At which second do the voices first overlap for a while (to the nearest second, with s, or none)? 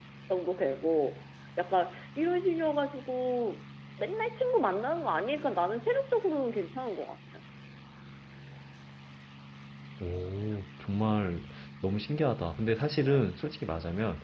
none